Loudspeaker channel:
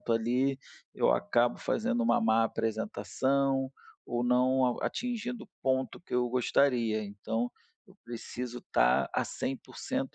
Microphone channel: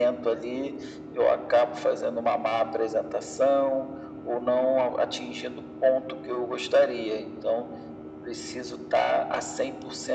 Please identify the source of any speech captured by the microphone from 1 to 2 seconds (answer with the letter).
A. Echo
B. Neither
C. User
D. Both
A